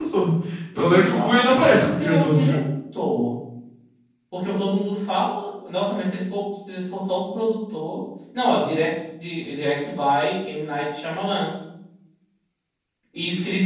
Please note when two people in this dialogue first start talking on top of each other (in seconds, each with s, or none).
0.8 s